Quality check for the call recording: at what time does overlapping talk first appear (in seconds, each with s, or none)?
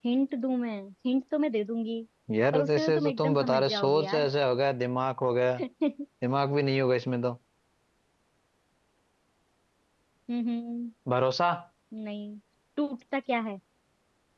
2.5 s